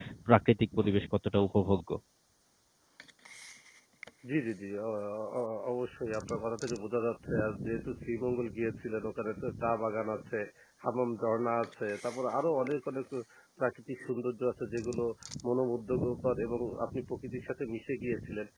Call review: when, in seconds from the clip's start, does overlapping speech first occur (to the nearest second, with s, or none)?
none